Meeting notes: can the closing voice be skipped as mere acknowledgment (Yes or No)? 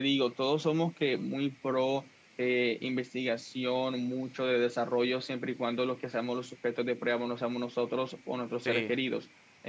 Yes